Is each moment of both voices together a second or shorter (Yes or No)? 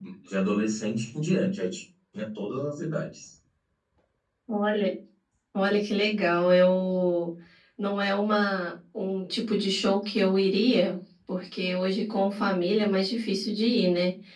Yes